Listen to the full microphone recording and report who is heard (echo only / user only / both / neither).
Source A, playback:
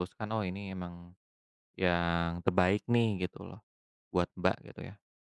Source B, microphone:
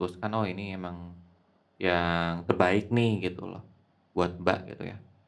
echo only